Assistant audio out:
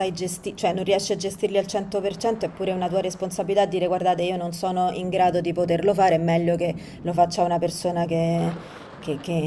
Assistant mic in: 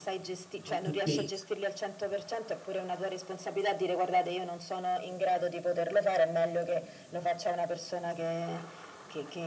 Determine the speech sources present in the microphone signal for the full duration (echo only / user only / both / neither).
both